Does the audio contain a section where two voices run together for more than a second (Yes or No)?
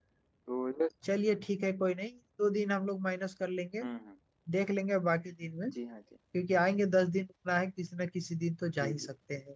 No